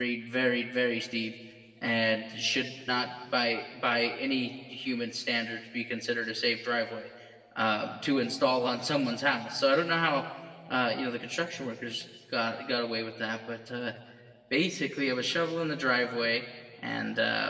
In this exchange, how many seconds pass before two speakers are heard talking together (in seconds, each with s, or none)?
none